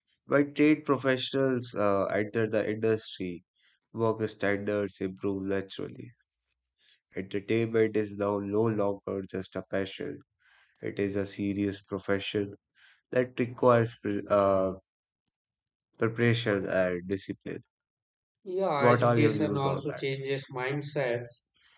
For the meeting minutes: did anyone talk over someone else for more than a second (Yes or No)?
Yes